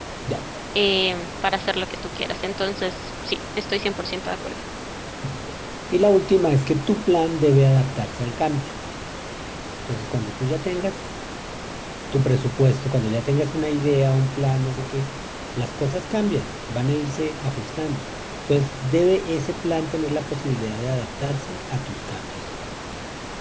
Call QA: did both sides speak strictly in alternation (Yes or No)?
Yes